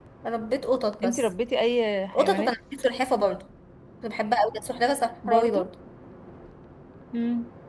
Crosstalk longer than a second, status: none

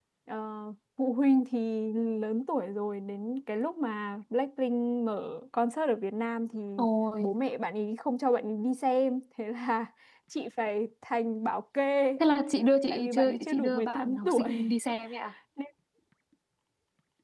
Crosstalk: present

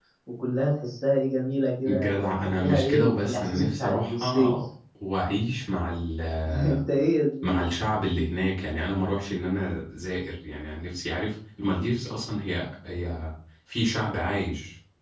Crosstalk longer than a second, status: present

